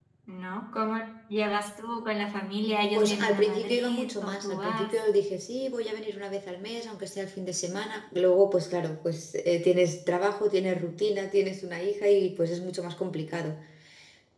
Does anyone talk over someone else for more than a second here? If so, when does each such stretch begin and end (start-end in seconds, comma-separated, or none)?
2.9-5.0